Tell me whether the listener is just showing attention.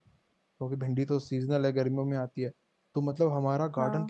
Yes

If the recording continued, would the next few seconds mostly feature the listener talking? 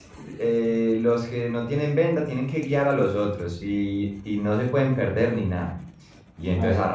No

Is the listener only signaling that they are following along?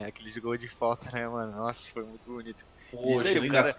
Yes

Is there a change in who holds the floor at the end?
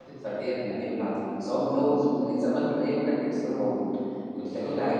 No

